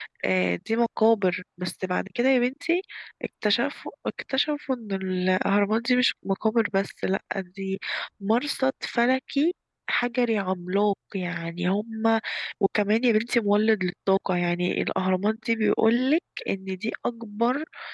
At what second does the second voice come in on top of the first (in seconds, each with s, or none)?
none